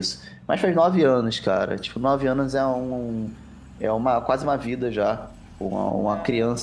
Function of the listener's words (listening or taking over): listening